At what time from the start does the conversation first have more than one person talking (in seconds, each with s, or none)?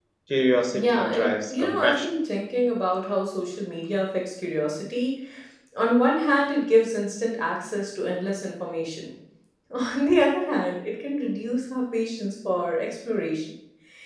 0.7 s